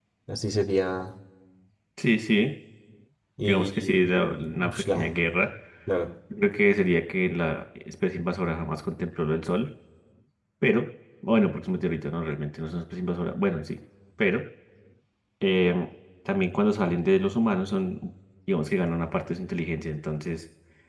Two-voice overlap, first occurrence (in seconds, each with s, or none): 3.4 s